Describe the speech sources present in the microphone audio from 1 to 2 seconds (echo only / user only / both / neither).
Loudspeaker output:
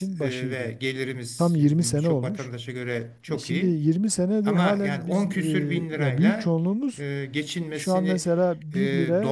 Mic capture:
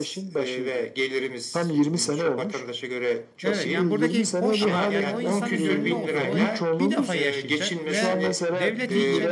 echo only